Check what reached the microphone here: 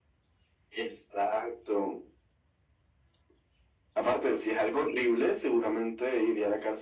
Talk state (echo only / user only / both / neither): echo only